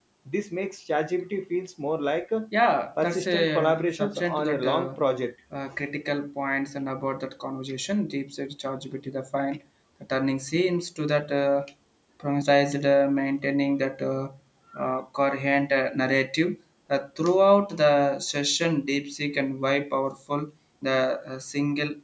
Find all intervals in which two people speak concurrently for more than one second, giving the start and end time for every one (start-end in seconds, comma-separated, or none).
3.0-4.9